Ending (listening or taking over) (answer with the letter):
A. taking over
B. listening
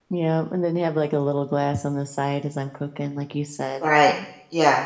A